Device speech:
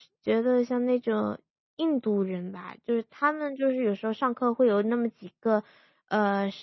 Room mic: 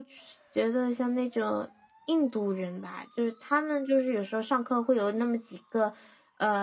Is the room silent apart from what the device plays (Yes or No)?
Yes